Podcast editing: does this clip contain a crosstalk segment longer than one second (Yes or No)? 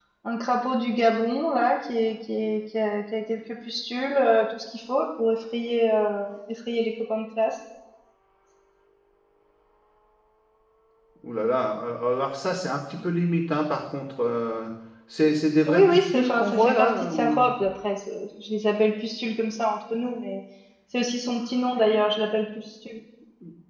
Yes